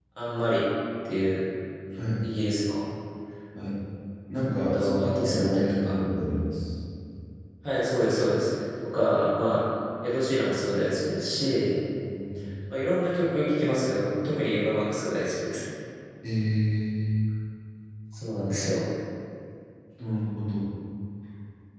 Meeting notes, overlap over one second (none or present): present